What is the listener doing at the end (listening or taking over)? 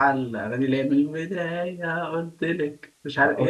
taking over